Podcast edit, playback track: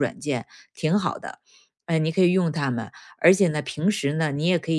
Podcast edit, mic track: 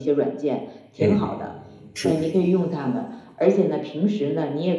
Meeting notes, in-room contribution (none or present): present